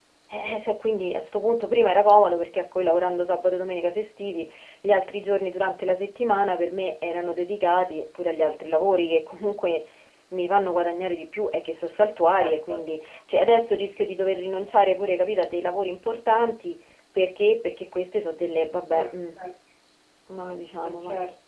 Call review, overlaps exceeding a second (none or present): none